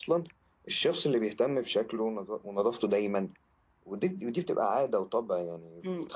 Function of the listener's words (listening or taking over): taking over